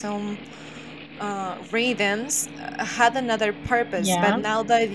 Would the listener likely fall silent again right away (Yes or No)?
Yes